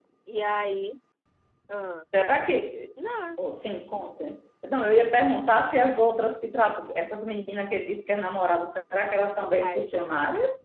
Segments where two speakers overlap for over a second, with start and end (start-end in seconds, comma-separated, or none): none